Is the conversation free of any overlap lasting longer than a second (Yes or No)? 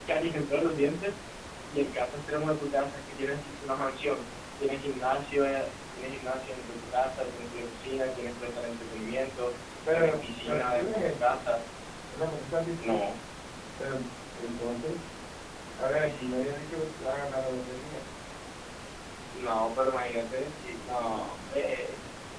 No